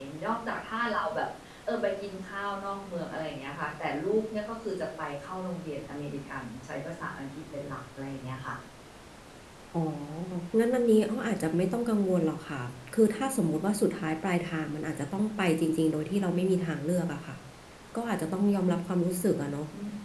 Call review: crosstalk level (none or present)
none